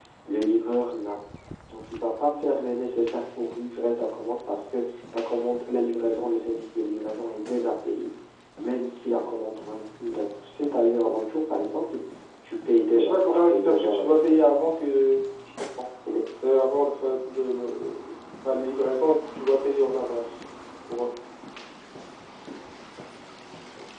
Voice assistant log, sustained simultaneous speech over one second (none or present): present